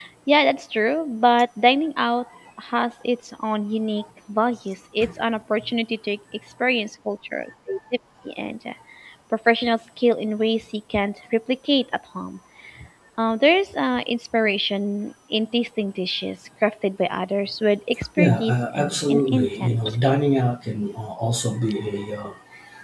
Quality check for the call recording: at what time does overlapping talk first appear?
18.2 s

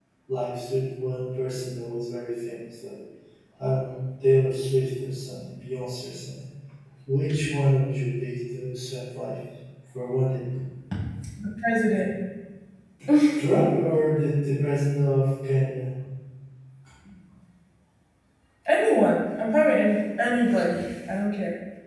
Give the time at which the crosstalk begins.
none

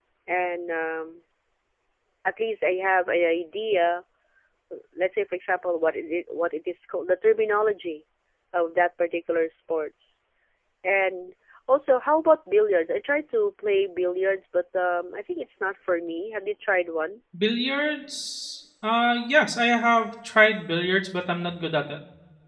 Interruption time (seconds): none

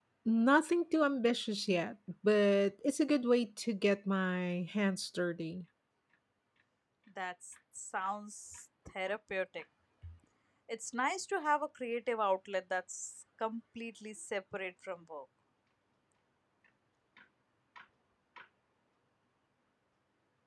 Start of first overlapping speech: none

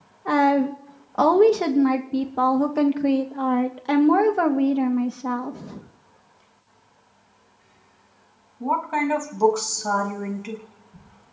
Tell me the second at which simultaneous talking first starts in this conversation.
none

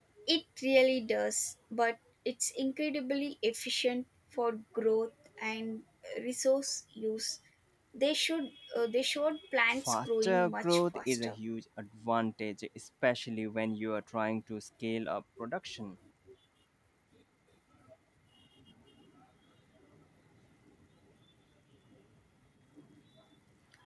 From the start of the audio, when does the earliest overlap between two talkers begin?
9.7 s

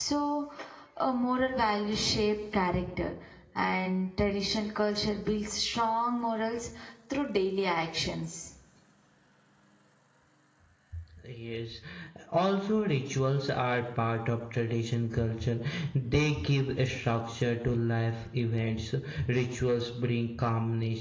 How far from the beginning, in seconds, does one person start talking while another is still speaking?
none

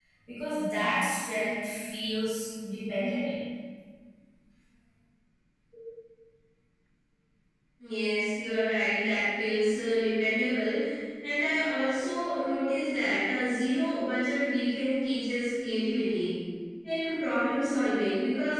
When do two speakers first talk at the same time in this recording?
none

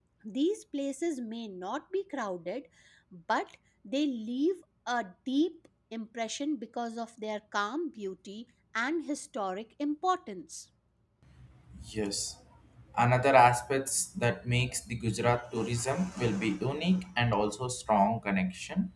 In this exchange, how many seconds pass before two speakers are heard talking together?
none

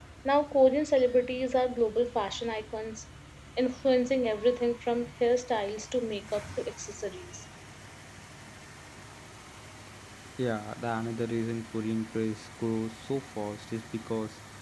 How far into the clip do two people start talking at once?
none

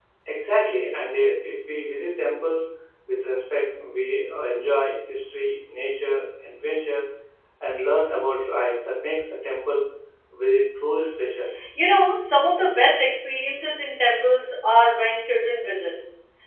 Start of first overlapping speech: none

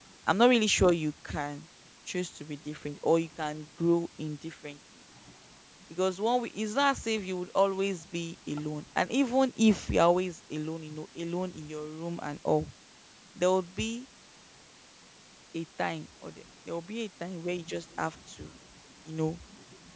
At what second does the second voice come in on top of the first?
none

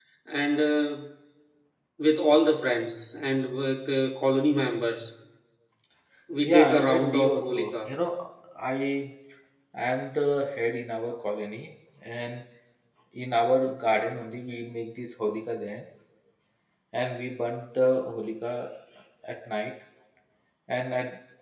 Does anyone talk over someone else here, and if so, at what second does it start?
6.5 s

